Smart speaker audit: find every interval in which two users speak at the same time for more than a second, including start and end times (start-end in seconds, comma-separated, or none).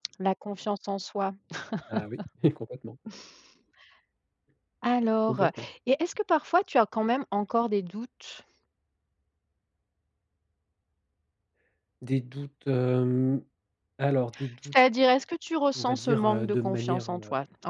15.8-17.1